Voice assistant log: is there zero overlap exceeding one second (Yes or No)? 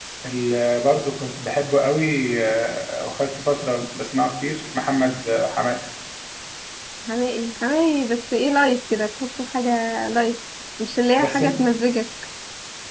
Yes